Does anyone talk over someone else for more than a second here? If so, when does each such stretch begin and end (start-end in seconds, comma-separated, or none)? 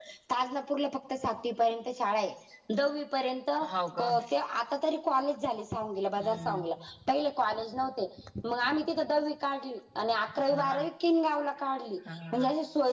none